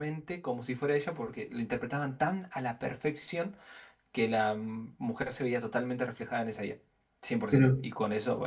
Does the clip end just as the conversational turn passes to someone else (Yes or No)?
No